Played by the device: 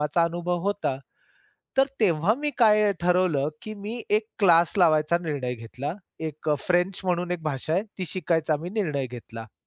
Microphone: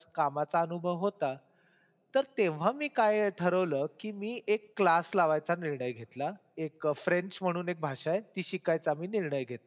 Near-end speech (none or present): none